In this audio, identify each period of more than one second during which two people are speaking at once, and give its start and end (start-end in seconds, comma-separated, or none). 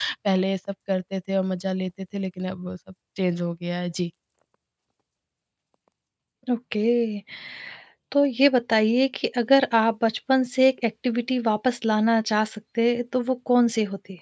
none